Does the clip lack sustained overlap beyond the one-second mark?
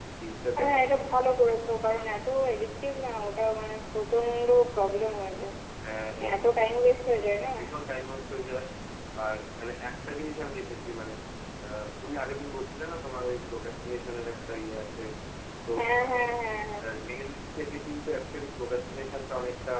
Yes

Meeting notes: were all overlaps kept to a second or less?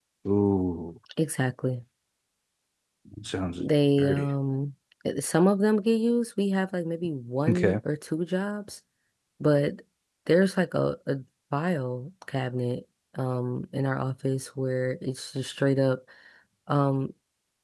Yes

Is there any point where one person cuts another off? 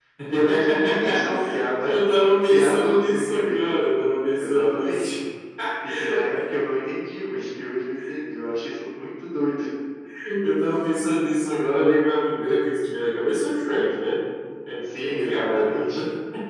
Yes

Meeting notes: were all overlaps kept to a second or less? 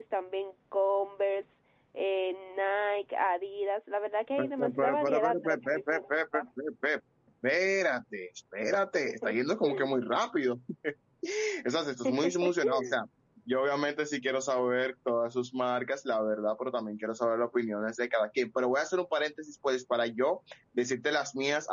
No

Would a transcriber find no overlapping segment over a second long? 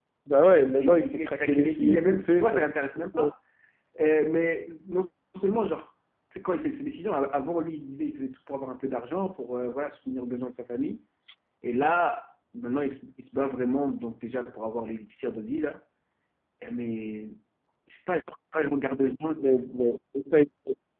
No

